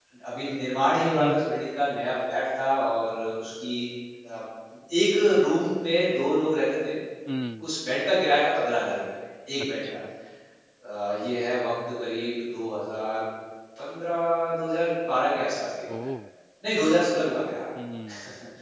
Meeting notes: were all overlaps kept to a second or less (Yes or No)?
Yes